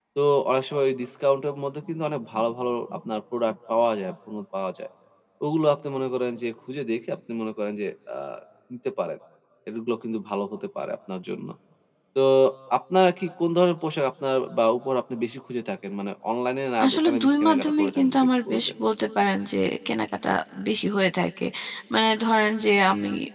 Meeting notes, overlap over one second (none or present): present